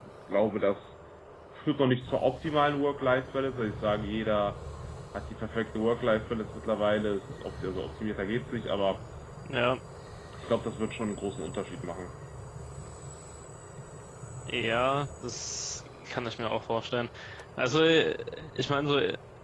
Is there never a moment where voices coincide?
Yes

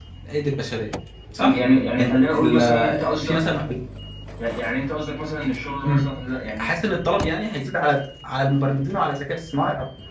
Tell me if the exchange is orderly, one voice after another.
No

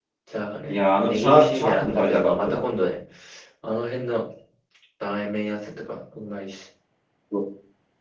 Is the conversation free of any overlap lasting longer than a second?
No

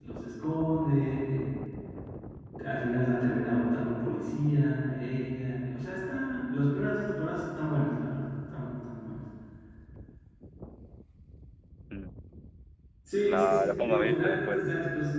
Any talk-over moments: Yes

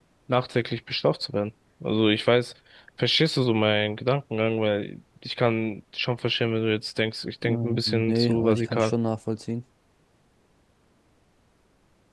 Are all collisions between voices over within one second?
No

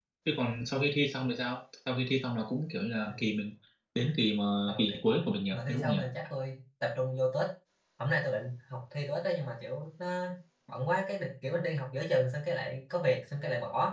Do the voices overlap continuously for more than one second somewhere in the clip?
Yes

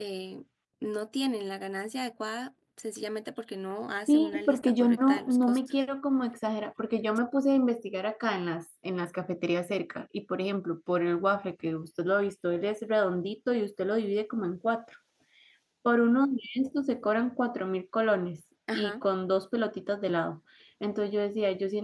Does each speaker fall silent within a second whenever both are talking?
No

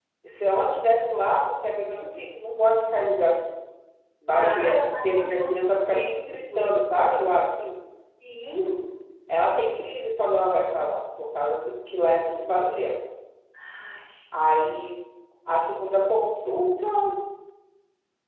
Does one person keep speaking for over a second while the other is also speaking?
Yes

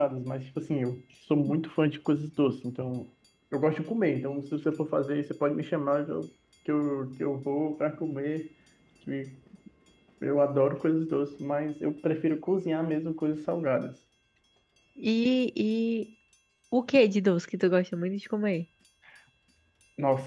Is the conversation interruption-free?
Yes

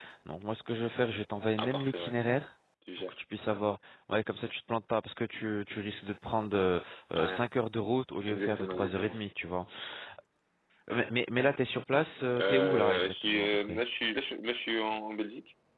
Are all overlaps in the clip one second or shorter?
No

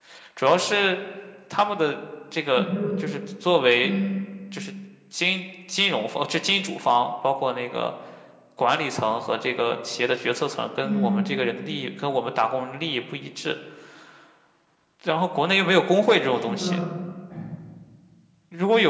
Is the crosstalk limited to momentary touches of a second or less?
Yes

